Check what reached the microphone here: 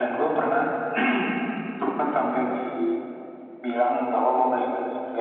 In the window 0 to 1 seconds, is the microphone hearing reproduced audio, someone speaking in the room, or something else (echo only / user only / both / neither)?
echo only